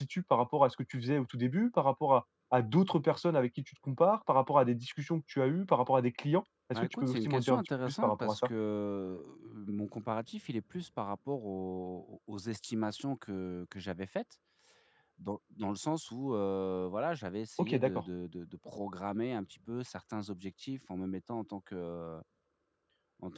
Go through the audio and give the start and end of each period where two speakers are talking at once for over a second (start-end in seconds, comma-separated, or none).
6.7-8.5